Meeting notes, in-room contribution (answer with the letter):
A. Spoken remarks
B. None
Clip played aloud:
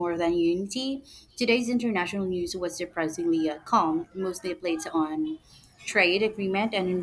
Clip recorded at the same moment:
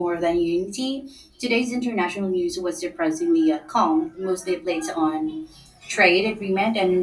B